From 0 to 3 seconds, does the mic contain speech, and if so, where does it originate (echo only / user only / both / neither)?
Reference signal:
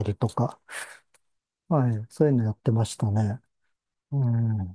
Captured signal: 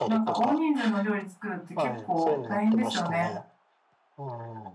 both